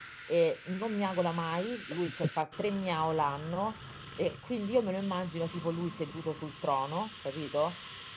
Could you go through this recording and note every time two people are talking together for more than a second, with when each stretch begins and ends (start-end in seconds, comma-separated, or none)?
none